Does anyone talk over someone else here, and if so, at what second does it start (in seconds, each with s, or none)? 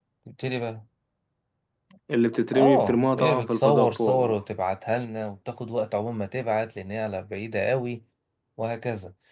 2.5 s